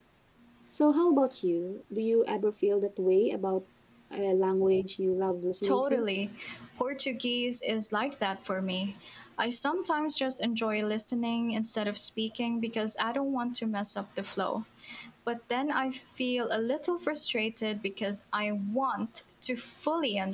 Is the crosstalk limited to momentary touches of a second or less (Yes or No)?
Yes